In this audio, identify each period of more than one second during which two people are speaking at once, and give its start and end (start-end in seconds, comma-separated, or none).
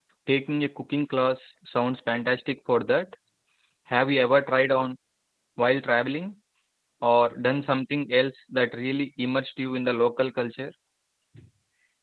none